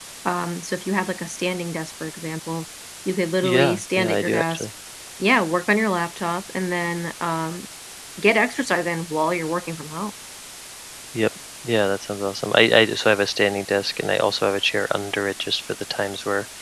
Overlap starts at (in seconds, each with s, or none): 3.4 s